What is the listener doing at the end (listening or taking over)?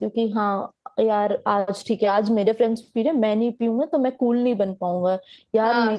listening